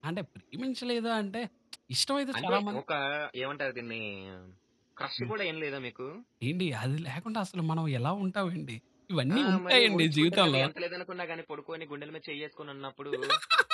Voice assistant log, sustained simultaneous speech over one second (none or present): present